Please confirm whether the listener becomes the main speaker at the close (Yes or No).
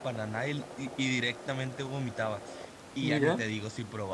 No